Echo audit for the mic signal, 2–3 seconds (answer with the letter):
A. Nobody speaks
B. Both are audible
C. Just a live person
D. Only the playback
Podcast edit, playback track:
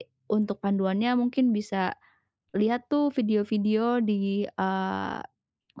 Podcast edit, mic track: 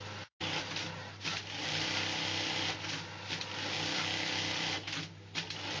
A